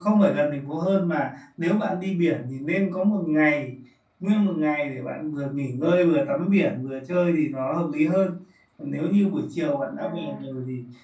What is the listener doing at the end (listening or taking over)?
listening